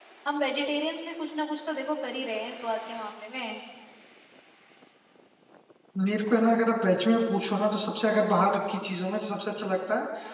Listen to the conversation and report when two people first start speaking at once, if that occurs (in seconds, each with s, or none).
none